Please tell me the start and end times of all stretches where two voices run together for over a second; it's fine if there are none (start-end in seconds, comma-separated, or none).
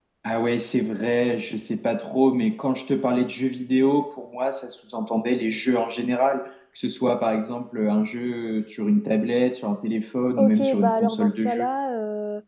10.4-11.7